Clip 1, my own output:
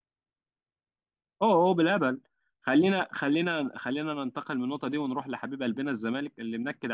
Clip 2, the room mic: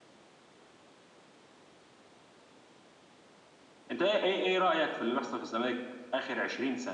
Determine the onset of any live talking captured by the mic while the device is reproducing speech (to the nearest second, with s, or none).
4 s